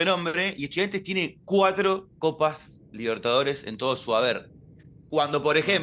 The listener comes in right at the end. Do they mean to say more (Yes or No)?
No